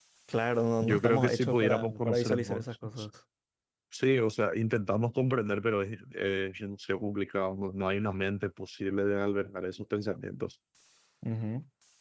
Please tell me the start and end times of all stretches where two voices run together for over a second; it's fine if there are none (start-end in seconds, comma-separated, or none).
0.8-2.6